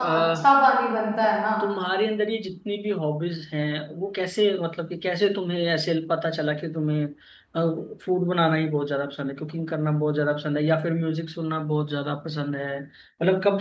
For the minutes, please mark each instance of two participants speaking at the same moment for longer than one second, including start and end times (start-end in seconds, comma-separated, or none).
none